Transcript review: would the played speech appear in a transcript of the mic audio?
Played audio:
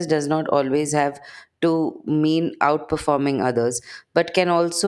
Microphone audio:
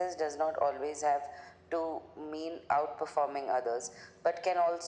Yes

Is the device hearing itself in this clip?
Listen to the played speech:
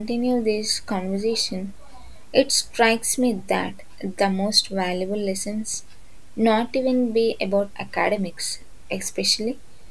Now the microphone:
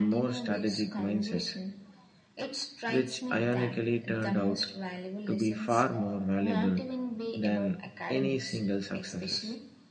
Yes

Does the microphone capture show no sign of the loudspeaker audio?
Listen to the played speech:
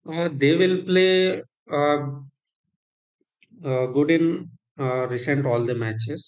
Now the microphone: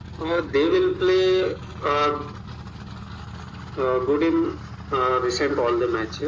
No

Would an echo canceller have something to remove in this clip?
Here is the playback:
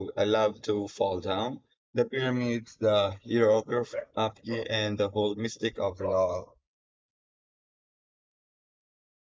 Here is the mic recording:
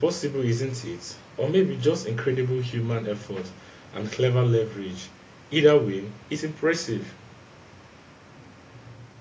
No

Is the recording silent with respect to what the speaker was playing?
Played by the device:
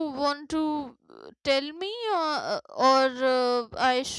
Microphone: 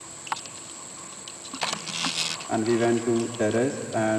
Yes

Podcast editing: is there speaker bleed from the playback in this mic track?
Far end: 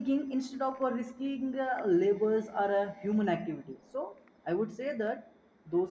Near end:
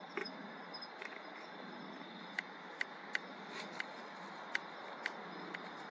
No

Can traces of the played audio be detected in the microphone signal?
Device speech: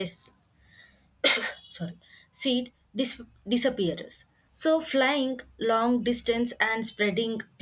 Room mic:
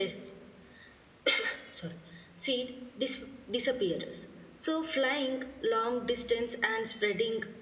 Yes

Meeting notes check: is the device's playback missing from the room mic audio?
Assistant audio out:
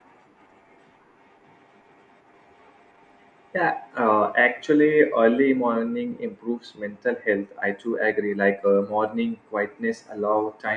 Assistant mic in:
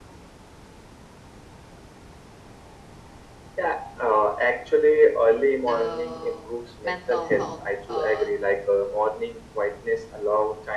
No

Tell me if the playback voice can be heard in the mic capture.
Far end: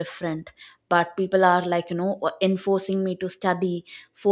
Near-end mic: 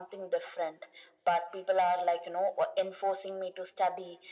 Yes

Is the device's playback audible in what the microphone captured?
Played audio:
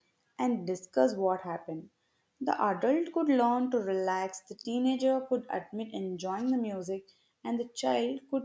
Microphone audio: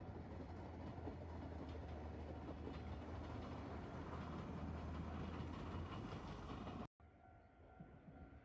No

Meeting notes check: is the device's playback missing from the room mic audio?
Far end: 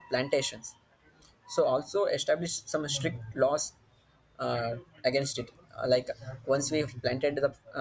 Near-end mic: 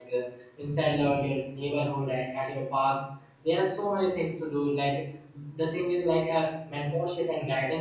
Yes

